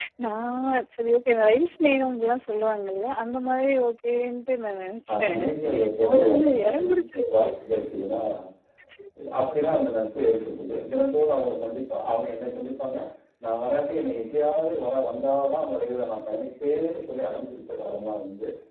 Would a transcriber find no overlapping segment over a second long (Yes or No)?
No